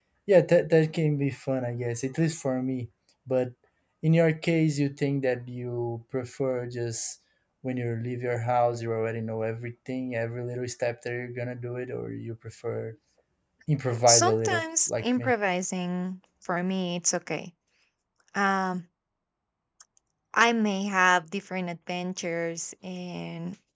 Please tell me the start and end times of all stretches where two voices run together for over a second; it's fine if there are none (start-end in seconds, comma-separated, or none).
13.9-15.3